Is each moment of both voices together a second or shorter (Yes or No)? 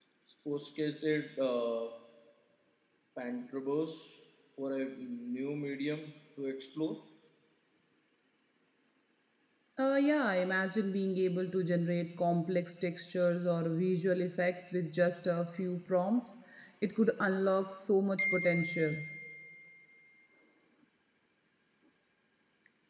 Yes